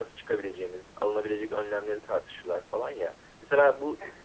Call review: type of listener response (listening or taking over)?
listening